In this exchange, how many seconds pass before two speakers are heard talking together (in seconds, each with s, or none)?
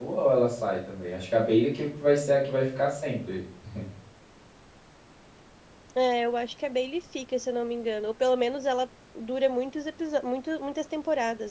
none